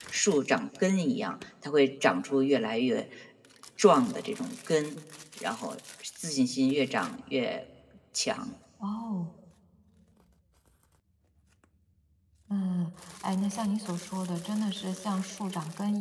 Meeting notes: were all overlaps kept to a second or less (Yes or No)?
Yes